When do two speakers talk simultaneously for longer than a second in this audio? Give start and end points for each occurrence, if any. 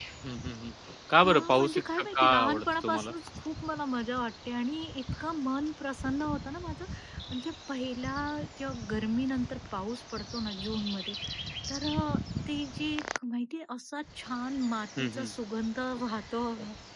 1.2-3.1

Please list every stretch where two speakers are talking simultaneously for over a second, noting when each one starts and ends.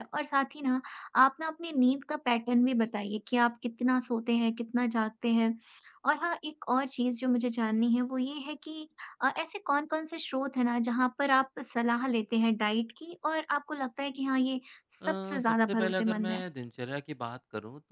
15.1-16.4

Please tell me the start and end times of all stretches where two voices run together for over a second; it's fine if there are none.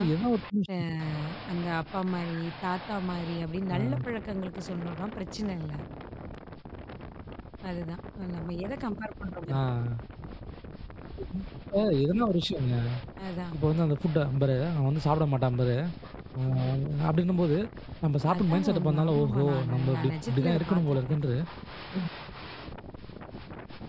18.4-21.2

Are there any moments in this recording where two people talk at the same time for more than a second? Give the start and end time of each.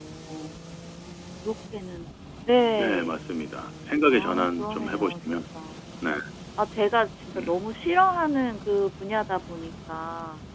4.1-5.4

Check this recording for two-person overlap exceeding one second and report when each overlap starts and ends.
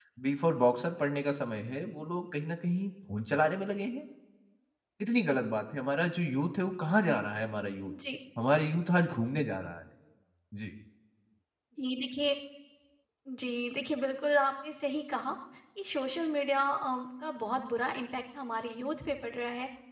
none

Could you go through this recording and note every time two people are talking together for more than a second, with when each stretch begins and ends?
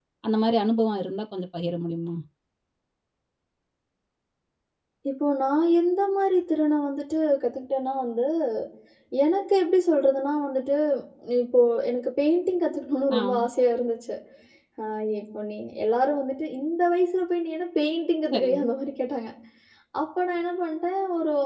none

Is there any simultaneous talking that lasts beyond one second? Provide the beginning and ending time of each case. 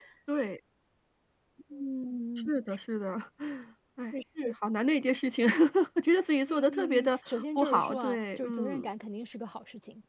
6.5-8.9

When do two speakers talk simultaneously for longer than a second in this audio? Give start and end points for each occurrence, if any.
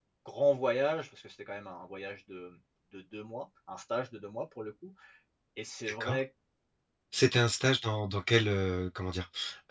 none

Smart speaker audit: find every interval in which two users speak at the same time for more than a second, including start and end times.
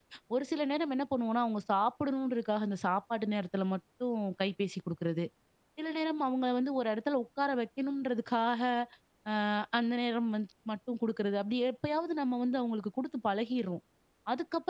none

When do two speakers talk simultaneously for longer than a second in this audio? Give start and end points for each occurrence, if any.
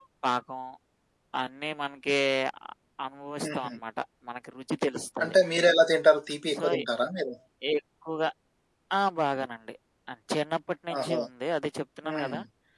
none

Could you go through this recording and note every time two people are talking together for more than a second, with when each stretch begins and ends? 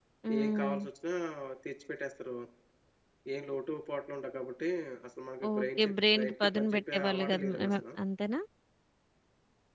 5.6-7.8

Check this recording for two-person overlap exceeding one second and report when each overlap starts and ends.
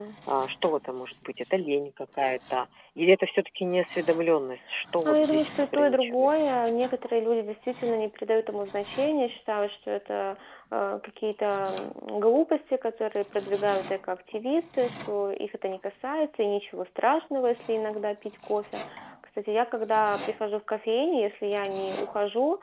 5.1-6.3

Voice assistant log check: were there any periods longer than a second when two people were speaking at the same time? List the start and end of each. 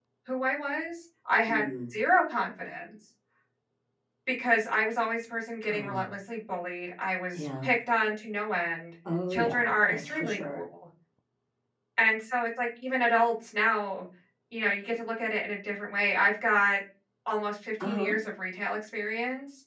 9.3-10.6

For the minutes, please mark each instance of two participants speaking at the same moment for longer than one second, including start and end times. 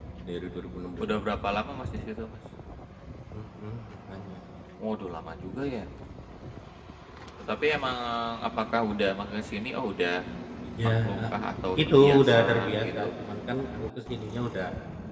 11.8-13.1

